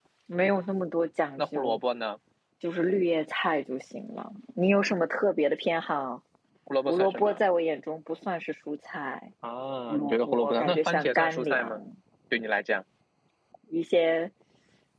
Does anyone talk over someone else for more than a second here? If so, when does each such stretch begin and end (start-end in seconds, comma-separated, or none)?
9.9-11.8